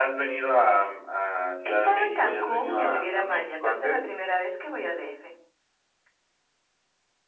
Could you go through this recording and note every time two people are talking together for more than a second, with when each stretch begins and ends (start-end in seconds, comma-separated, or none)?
1.7-4.0